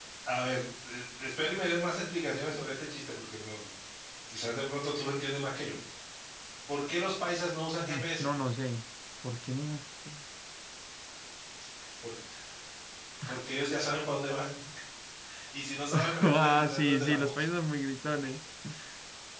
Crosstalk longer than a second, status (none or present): present